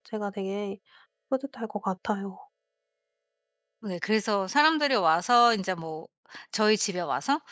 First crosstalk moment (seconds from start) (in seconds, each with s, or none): none